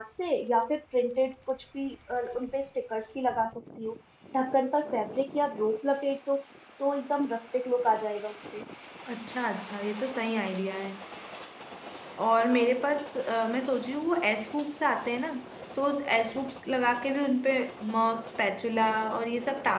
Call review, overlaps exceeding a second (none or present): none